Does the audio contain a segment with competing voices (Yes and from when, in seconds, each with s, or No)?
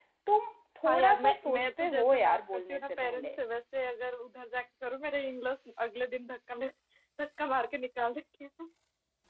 Yes, from 0.8 s